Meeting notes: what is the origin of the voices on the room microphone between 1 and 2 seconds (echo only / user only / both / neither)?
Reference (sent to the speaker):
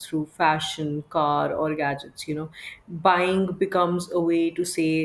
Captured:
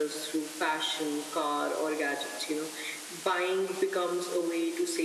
echo only